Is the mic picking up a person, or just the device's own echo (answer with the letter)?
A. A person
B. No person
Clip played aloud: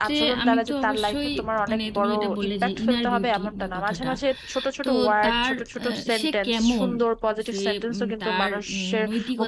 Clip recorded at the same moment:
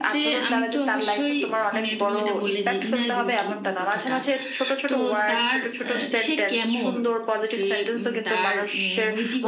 B